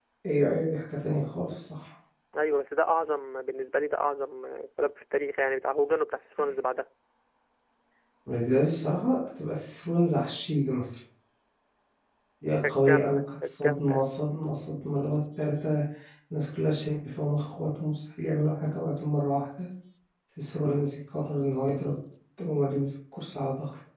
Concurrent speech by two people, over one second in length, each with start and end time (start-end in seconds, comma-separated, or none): 12.5-14.0